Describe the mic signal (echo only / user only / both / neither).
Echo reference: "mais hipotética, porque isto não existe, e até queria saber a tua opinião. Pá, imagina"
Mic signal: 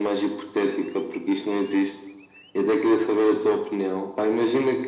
echo only